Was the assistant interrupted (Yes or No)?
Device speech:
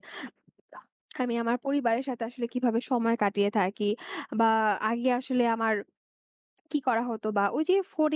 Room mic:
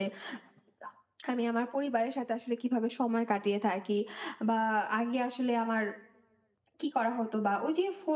No